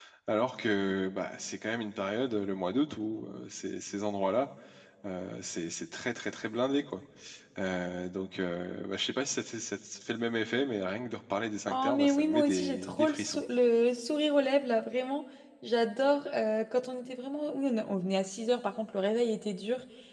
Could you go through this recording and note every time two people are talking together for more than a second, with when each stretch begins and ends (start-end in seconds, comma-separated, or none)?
11.7-13.4